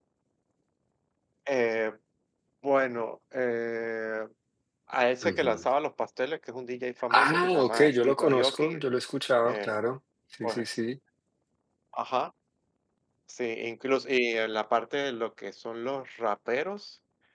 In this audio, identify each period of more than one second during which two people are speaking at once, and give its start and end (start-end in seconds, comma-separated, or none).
7.1-8.8